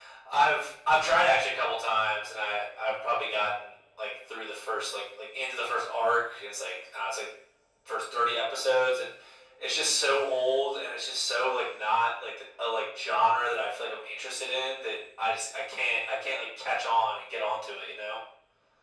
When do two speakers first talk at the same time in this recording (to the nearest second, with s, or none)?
none